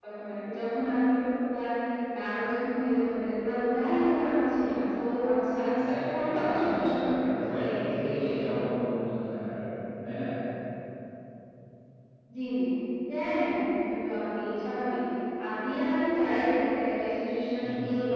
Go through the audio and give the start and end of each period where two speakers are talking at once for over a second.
5.8-8.6

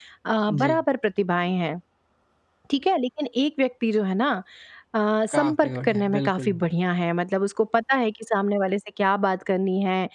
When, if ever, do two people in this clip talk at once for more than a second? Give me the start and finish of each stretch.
5.3-6.6

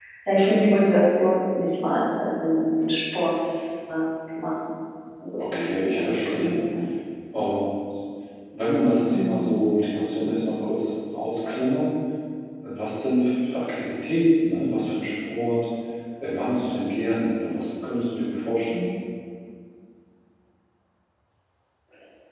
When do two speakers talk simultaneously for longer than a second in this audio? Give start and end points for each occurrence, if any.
5.4-6.6

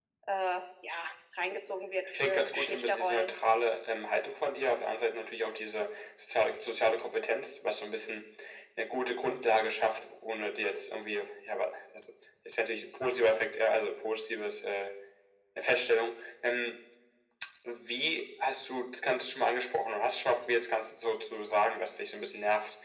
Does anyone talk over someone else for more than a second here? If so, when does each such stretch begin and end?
2.1-3.3

